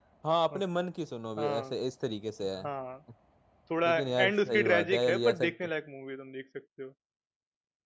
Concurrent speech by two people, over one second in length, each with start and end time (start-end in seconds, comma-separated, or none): 3.8-5.4